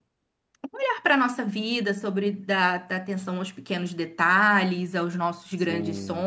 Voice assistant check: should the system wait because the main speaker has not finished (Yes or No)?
No